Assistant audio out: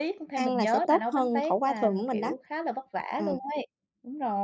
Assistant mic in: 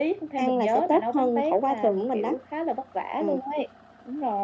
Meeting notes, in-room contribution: none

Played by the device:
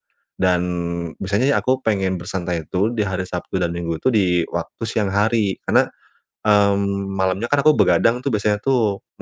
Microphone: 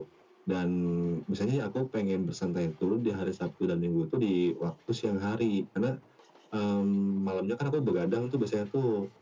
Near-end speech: none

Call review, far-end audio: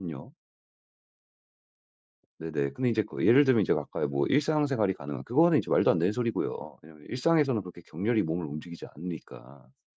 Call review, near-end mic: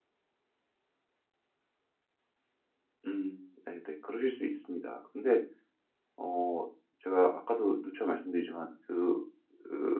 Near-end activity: present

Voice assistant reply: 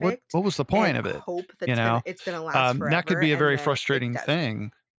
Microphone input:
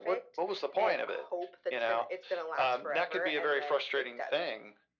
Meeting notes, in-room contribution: none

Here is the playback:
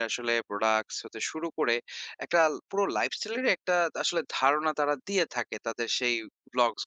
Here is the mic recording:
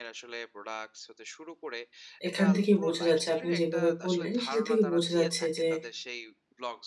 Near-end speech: present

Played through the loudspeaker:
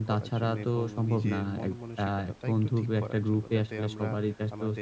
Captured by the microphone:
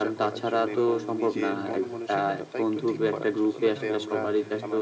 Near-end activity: present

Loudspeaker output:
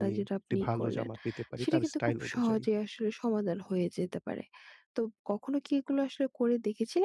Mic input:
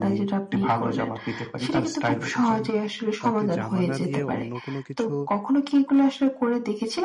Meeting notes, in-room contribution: present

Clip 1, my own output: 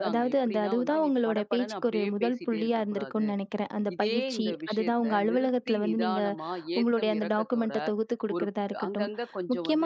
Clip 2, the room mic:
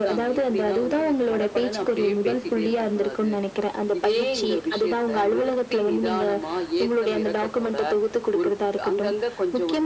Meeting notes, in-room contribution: none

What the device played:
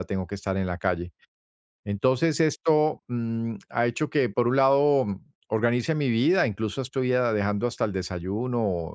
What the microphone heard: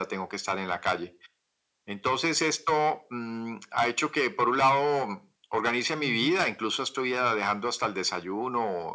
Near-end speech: present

